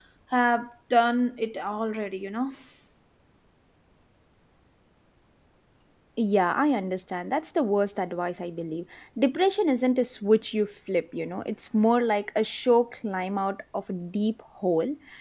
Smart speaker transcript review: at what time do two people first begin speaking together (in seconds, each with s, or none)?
none